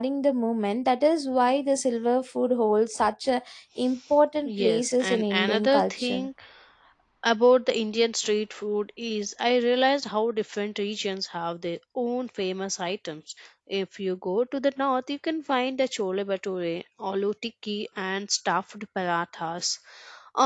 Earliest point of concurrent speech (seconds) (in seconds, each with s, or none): 4.4 s